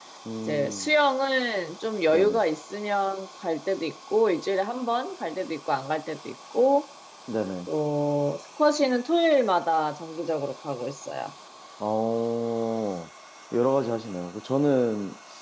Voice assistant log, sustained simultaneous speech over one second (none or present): none